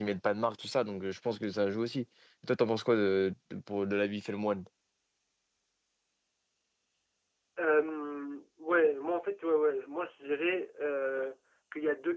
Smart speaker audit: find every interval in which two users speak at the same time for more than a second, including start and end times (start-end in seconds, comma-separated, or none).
none